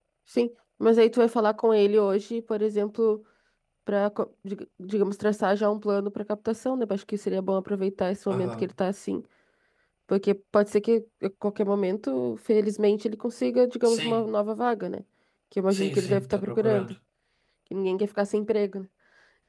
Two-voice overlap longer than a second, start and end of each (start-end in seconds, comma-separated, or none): 15.7-16.9